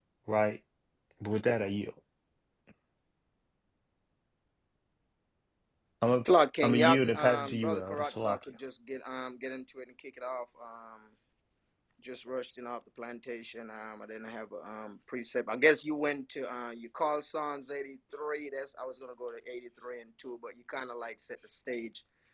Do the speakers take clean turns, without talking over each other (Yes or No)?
No